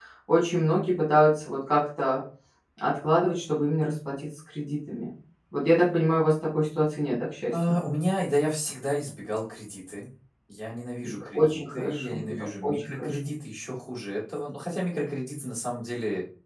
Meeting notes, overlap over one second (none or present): present